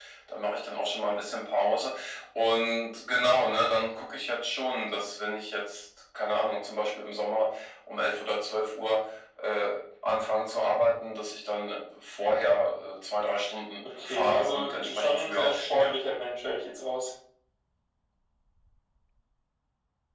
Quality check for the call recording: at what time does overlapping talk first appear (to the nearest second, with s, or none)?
14 s